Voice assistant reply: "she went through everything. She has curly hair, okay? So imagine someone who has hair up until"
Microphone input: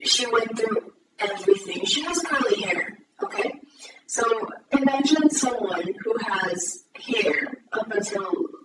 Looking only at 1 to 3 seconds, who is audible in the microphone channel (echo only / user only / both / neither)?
echo only